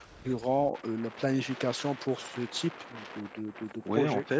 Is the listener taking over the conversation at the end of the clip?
Yes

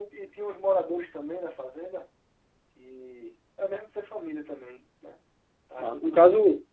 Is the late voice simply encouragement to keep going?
No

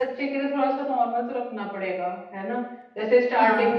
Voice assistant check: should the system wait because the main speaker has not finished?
Yes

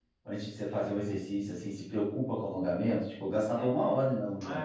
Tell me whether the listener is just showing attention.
No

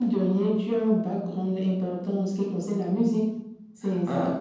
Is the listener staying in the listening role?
No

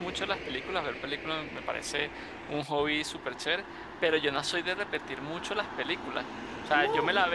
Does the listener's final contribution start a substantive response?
No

